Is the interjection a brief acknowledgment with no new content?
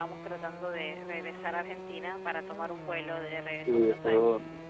No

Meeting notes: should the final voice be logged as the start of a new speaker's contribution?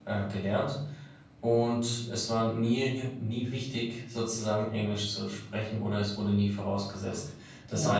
No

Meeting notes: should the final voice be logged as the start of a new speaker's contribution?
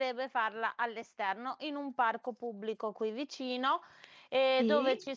No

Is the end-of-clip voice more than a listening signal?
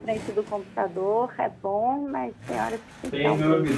Yes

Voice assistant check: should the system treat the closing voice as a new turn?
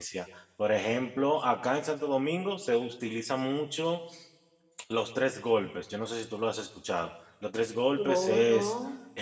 No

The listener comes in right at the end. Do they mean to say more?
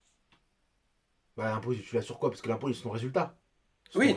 Yes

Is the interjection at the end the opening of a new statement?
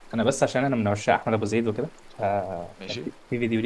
No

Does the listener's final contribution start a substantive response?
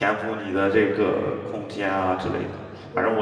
No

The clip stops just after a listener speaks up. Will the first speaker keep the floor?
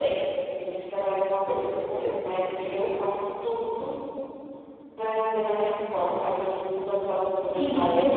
Yes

